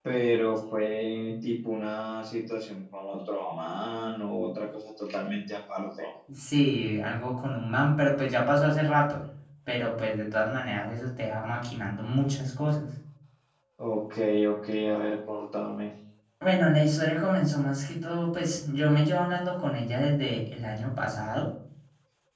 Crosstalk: none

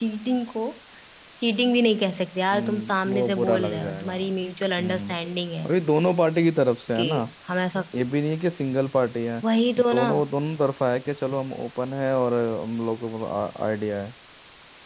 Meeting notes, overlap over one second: present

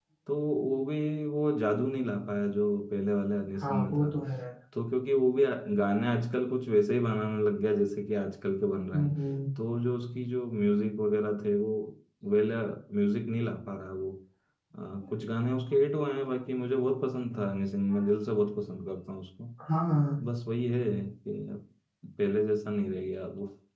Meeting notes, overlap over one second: none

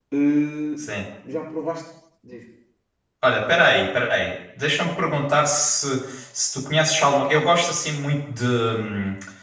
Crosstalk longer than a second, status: none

